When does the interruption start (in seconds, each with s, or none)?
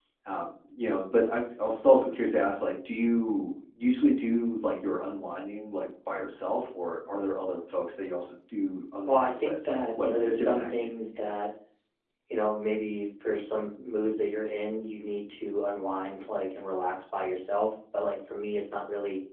9.1 s